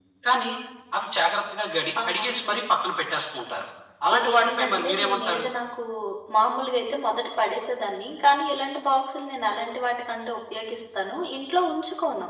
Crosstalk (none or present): present